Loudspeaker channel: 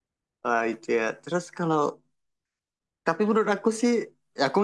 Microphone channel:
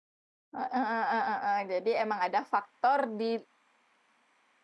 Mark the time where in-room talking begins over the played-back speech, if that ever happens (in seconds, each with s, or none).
0.6 s